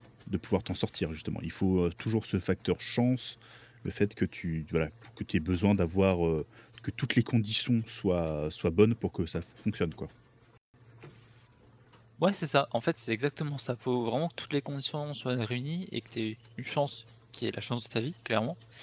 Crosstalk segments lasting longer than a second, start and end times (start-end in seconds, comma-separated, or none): none